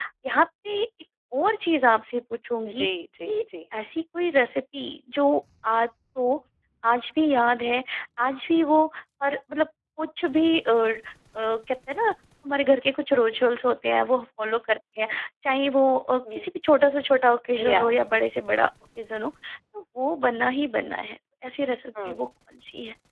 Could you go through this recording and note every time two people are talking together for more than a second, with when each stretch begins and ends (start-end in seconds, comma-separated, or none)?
none